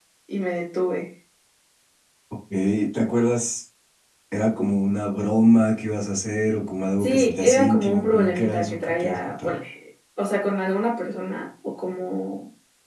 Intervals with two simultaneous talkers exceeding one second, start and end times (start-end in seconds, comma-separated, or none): 7.0-9.5